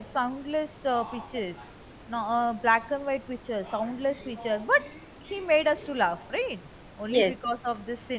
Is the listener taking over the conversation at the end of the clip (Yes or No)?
No